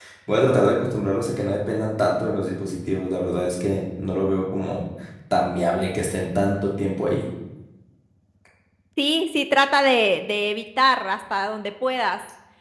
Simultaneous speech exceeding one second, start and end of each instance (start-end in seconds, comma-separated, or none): none